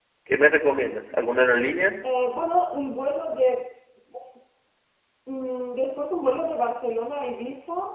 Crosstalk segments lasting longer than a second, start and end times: none

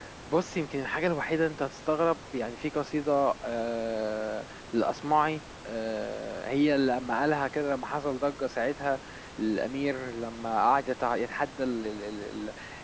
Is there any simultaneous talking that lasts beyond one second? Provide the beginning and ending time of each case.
none

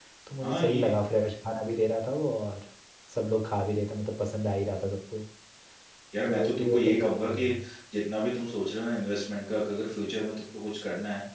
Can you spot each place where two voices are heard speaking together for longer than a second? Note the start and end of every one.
6.3-7.6

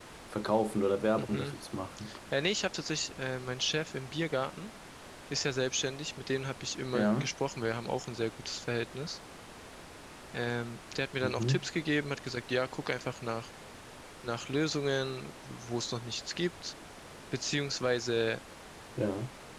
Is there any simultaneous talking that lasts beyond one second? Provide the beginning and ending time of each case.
none

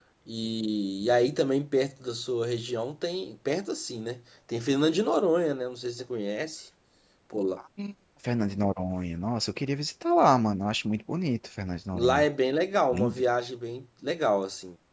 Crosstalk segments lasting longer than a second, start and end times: none

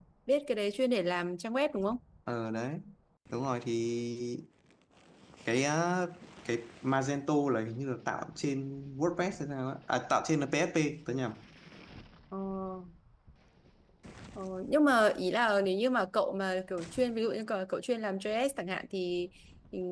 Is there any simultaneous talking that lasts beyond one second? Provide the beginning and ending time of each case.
none

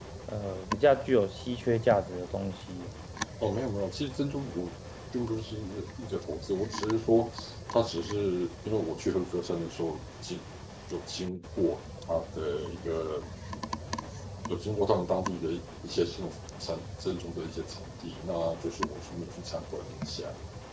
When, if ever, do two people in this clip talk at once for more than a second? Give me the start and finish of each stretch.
none

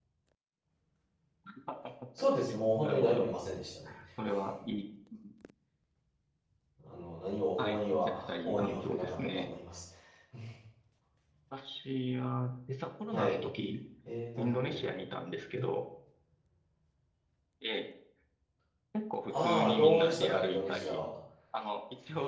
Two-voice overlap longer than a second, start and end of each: 7.6-9.5, 19.3-21.0

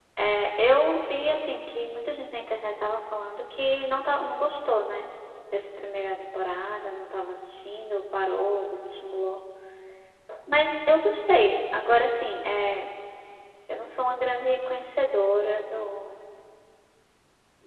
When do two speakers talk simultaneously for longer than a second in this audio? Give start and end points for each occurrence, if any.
none

